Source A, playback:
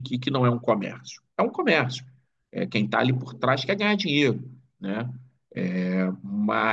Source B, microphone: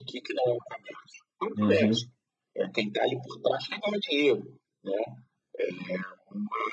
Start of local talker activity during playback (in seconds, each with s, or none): 1.6 s